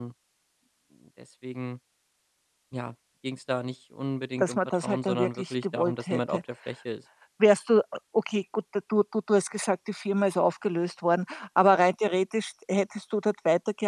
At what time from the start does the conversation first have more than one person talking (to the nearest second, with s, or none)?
4 s